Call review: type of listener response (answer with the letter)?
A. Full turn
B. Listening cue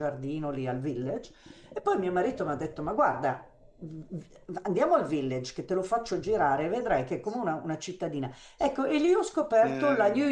B